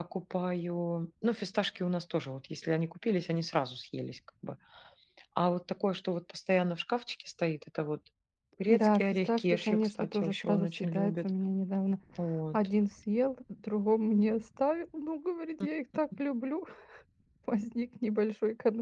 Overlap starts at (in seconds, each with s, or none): 8.7 s